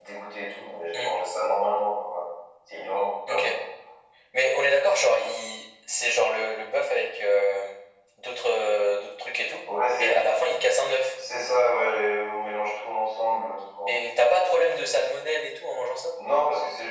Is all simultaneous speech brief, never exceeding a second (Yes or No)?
Yes